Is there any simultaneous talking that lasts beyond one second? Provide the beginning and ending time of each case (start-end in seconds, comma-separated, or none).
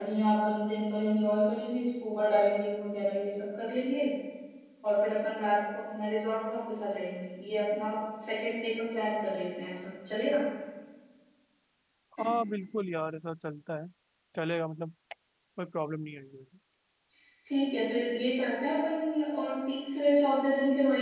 none